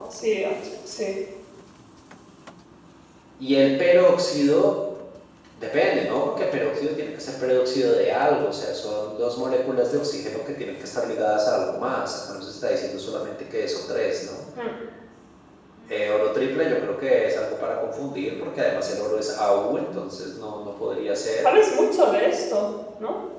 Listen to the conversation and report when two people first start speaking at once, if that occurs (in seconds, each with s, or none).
none